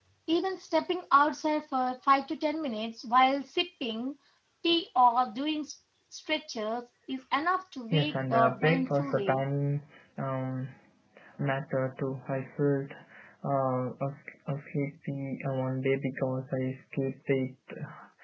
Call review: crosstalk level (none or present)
present